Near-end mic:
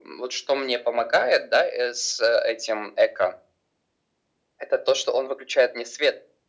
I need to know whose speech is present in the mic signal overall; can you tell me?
echo only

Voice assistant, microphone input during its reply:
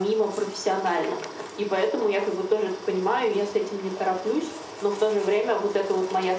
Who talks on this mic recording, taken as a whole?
echo only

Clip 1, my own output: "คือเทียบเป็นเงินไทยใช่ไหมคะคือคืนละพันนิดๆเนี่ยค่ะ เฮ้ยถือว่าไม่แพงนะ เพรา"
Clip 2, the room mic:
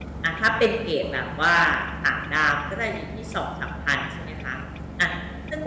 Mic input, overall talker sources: user only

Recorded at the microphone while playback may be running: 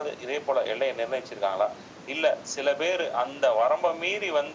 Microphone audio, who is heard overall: echo only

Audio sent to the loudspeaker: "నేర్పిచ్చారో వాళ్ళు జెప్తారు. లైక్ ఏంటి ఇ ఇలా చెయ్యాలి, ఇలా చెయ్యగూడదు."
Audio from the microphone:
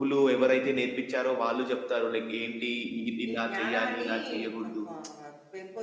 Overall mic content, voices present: both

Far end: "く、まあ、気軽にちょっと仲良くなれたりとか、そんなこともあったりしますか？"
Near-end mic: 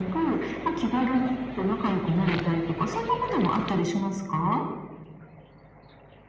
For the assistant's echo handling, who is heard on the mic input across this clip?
echo only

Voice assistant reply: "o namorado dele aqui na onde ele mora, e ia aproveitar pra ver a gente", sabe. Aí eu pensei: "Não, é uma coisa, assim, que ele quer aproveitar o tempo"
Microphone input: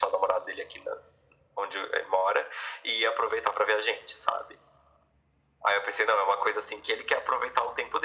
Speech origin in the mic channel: echo only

